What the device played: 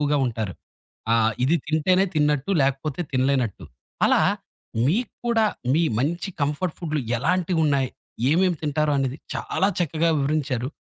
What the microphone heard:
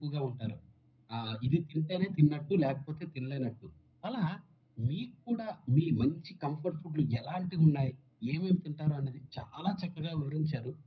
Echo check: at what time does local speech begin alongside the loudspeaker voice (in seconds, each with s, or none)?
none